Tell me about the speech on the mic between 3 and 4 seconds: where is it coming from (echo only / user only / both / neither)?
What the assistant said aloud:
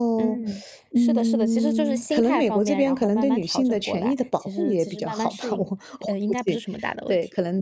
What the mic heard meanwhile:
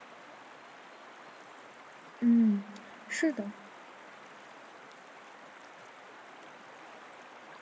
user only